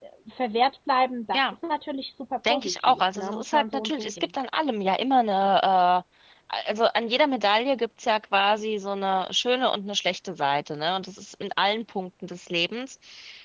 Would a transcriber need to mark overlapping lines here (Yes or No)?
Yes